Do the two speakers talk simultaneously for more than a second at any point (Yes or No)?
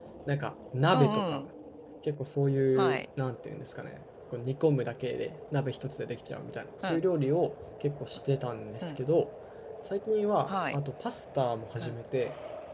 No